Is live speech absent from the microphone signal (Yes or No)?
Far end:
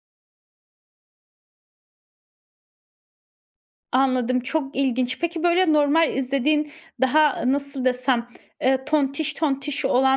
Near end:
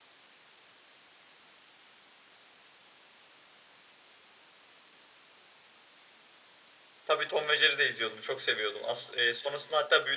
No